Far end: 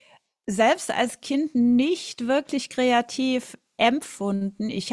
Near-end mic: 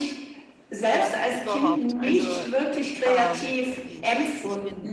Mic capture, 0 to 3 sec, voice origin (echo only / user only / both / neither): both